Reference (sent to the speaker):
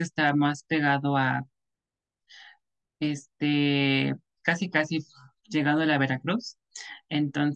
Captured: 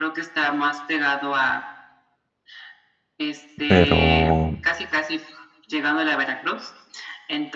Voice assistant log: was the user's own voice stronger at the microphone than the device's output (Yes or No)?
Yes